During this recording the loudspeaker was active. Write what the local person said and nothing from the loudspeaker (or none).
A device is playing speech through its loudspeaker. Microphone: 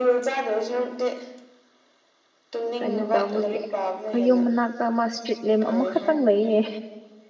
ꯀꯩꯅꯣ ꯇꯧꯕꯒꯤ ꯑꯩꯈꯌꯨꯝ ꯃꯅꯥꯛꯇ ꯑꯃ ꯏꯁꯇ꯭ꯔꯤꯠ ꯂꯦꯝ ꯑꯃꯈꯛꯇꯪ ꯂꯩꯌꯦ